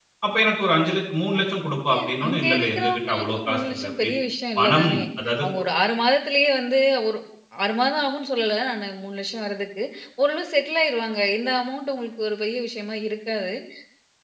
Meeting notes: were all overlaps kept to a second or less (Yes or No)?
No